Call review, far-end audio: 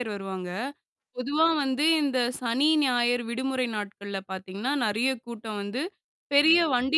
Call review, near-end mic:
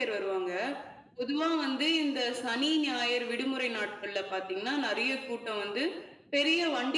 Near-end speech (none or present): none